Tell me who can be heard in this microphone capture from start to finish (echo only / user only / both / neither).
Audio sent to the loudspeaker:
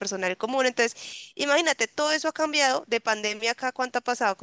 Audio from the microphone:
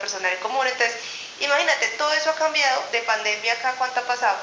echo only